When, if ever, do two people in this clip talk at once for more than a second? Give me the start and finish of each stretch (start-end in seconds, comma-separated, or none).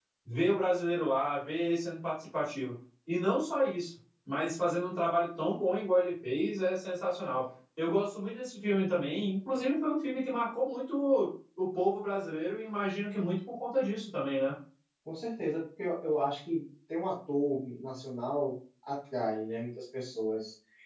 none